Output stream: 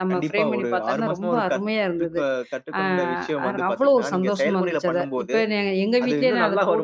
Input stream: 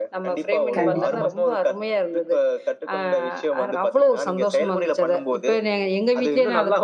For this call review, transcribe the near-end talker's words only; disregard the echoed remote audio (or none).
கண்டிப்பா.